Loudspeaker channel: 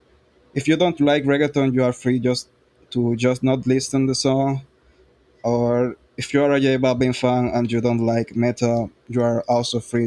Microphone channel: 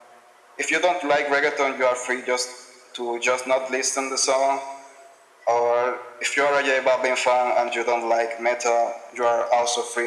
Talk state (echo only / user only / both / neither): echo only